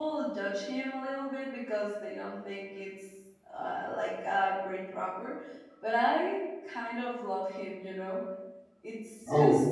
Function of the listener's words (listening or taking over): listening